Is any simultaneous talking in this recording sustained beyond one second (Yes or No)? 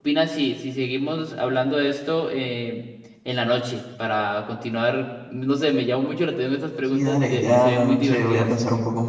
Yes